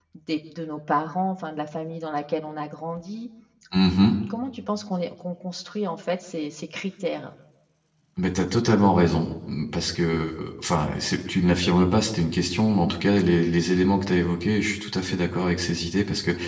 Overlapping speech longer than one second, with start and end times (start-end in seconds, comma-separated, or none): none